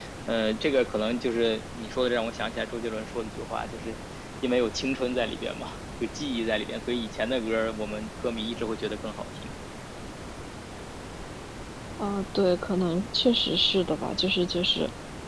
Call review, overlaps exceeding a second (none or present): none